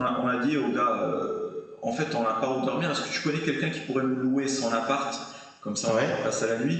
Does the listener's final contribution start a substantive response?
No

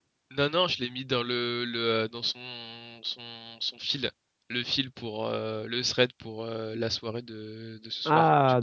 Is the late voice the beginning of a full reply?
Yes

